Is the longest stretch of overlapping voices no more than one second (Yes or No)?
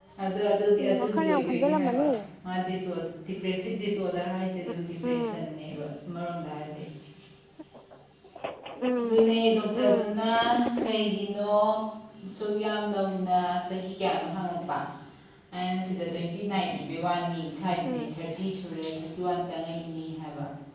No